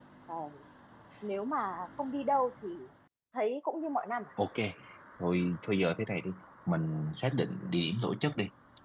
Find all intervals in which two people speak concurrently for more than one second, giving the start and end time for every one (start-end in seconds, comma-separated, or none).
none